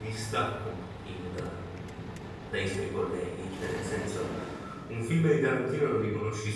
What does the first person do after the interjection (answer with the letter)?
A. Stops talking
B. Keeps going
B